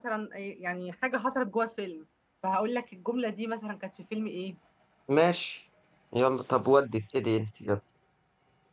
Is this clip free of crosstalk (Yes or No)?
Yes